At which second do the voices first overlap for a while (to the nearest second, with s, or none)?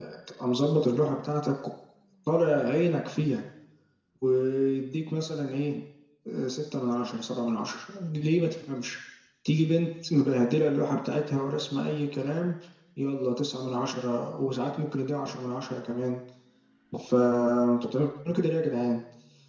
none